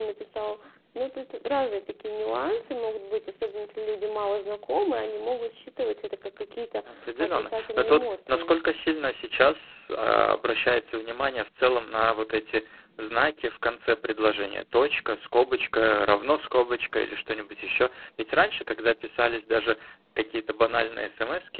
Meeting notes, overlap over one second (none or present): present